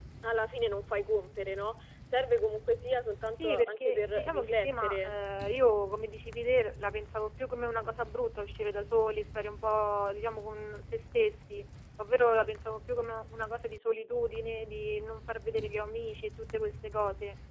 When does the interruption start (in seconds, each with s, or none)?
3.4 s